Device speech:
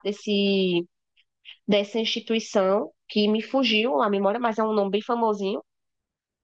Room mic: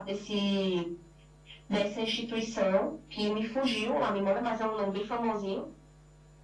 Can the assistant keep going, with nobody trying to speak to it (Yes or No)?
Yes